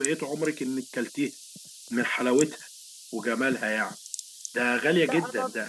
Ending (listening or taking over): taking over